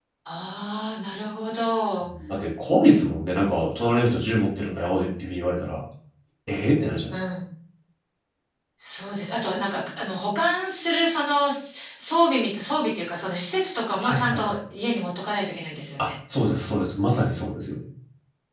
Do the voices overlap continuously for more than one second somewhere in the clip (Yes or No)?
No